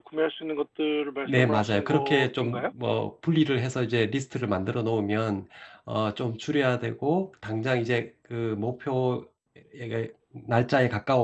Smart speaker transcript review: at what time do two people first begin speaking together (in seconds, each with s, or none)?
1.3 s